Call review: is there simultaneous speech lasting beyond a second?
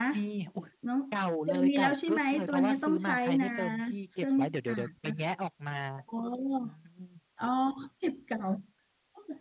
Yes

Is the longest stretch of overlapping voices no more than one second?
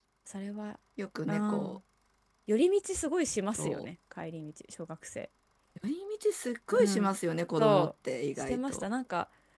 Yes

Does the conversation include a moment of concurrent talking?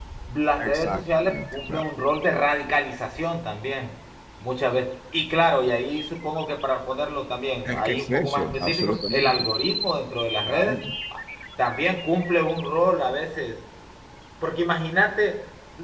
Yes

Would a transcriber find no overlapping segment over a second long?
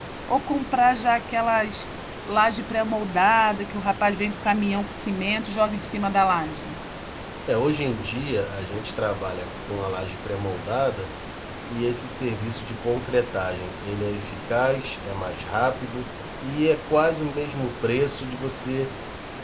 Yes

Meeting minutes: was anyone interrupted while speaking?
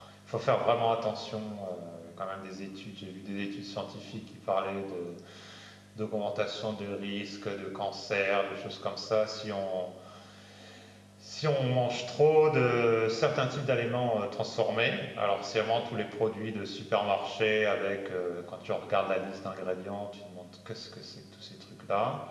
No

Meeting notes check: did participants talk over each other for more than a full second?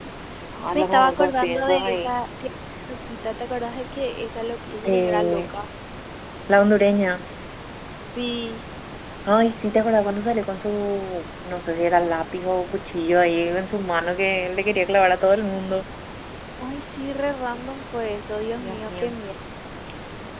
Yes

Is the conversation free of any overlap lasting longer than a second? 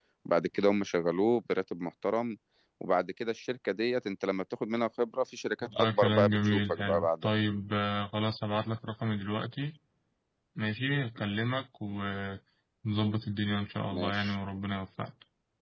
No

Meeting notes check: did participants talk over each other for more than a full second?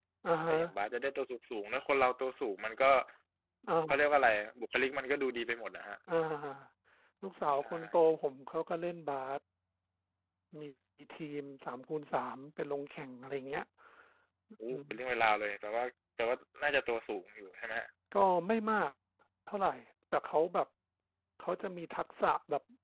No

